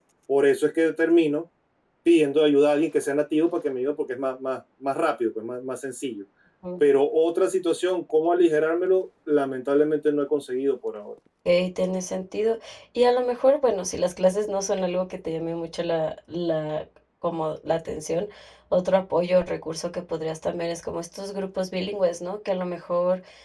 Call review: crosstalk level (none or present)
none